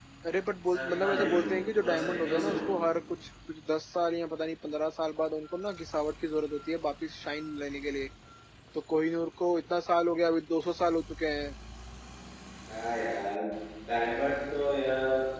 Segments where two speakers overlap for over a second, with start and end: 0.6-2.8

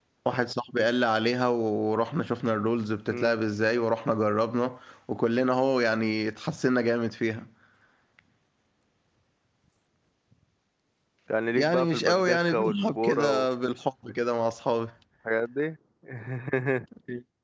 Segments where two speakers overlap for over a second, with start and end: 11.6-13.5

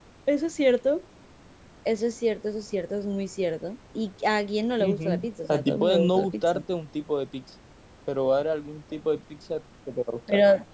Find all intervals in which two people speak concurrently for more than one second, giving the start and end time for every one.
4.8-6.6

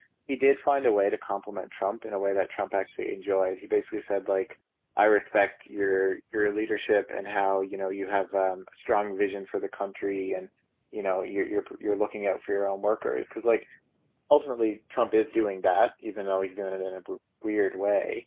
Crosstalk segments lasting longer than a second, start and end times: none

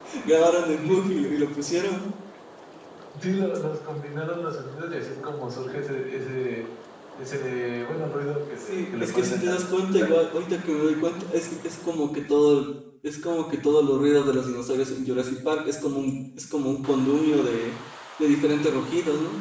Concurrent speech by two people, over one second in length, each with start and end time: 8.6-10.1

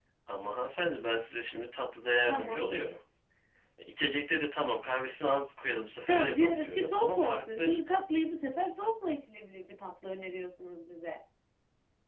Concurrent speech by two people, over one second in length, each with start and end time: 6.0-7.8

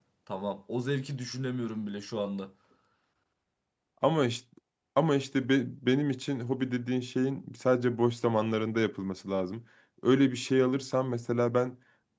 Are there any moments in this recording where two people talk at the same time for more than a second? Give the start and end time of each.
none

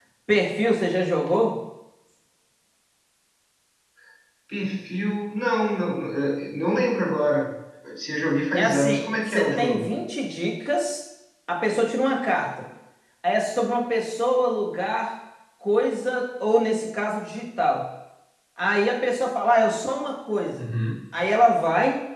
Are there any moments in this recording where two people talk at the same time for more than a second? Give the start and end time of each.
8.5-10.0

